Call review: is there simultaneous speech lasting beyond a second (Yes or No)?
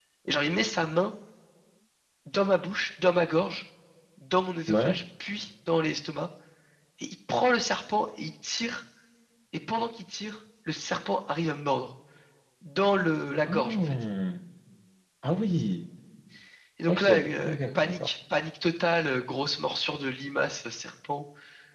Yes